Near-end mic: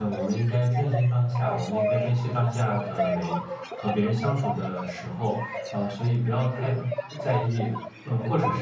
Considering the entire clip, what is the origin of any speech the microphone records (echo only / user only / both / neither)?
both